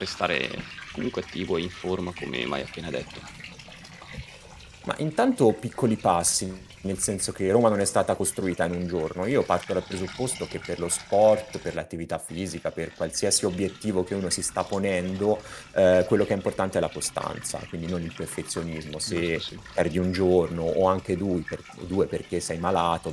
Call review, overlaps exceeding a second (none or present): none